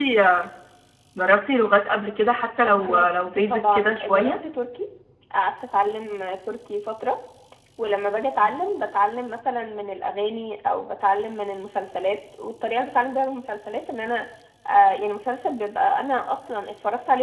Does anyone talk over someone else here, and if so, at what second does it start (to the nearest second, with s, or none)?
3 s